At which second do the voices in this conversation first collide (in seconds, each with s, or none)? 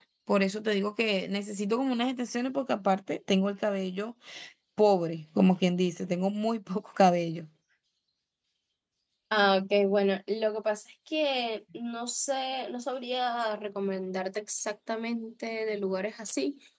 none